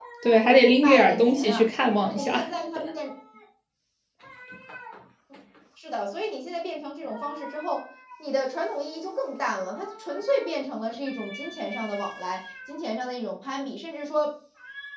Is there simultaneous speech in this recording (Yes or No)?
Yes